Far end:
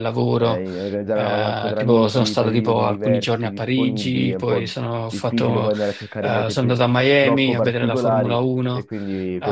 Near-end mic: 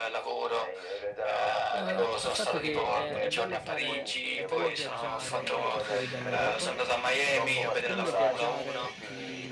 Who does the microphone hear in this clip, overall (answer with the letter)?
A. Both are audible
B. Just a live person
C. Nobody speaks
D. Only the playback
A